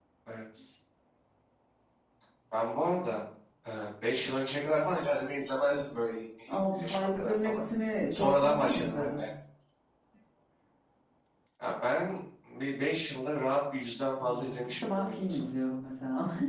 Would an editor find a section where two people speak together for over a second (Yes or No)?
Yes